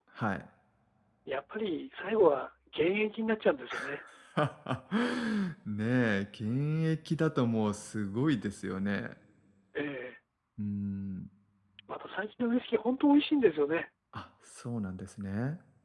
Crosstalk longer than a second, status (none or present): none